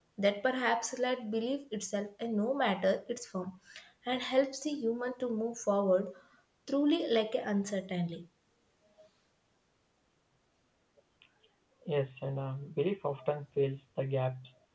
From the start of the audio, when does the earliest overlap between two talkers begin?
none

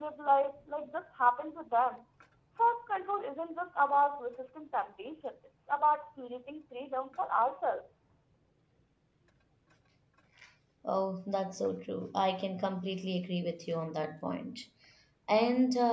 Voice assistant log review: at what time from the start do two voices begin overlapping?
none

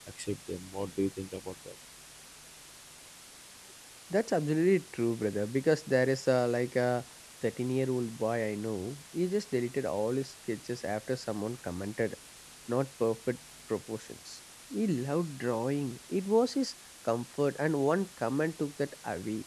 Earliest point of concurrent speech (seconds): none

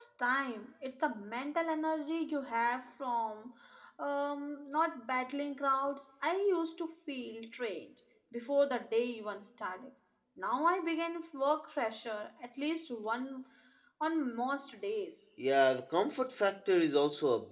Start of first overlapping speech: none

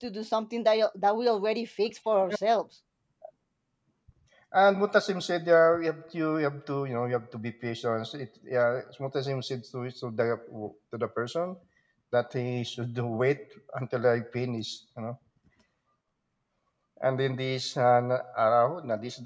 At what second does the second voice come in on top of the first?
none

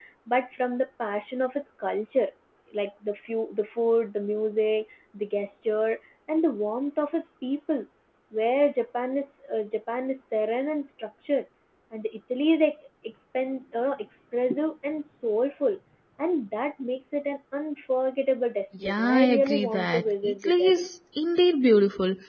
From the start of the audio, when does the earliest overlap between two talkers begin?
18.8 s

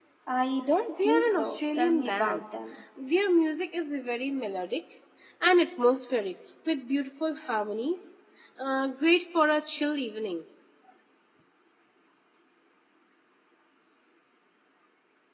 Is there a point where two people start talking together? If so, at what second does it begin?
0.9 s

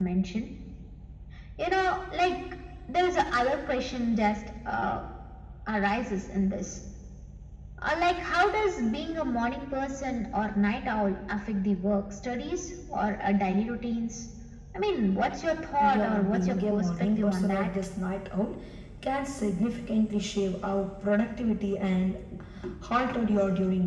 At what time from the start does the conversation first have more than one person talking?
15.8 s

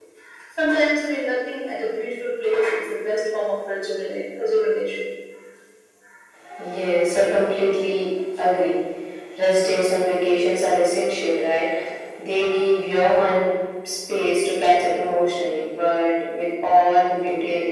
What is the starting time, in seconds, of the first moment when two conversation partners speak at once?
none

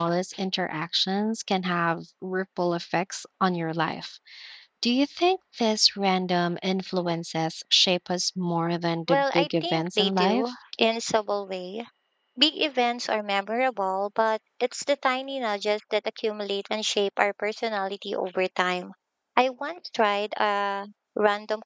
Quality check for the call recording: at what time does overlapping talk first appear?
9.1 s

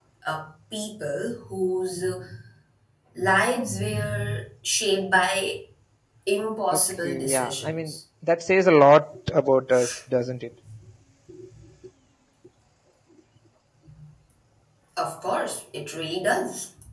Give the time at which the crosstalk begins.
6.7 s

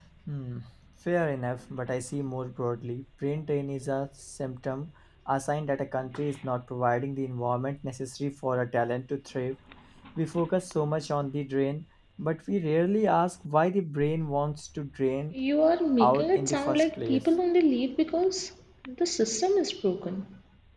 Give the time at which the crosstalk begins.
16.0 s

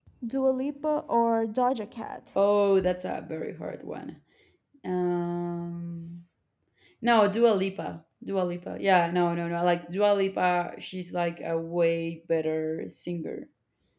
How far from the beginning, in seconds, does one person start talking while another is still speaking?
none

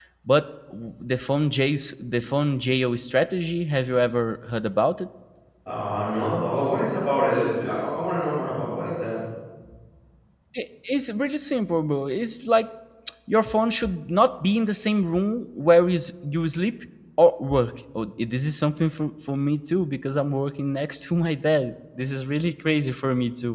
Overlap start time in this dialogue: none

